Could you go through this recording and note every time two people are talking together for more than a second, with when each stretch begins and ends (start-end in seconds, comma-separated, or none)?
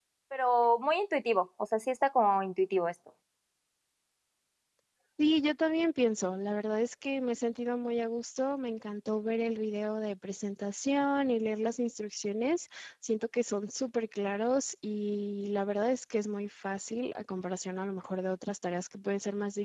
none